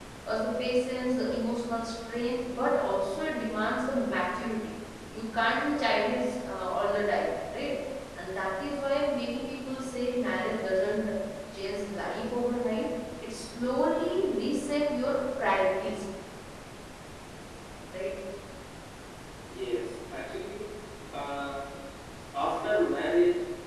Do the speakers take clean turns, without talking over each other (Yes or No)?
Yes